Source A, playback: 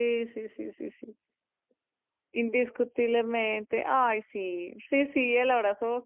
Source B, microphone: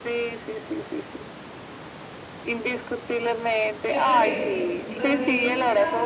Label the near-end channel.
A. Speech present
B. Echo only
A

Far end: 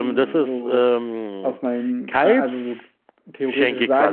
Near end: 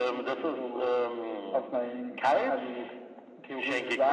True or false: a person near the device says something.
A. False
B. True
A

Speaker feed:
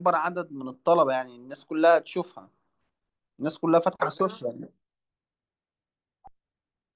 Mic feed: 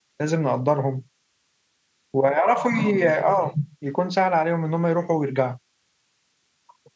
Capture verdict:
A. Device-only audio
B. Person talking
B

